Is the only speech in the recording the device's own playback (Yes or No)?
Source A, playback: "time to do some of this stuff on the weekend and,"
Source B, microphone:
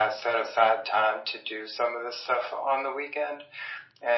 Yes